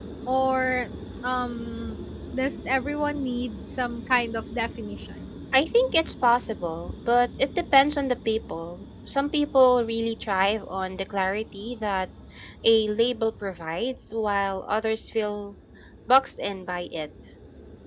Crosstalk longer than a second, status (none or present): none